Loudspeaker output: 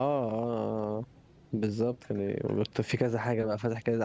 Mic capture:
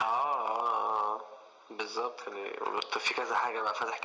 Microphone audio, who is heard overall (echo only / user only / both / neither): echo only